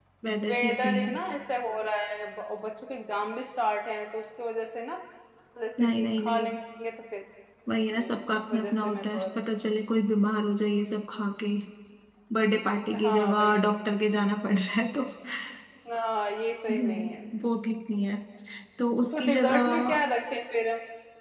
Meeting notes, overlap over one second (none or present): present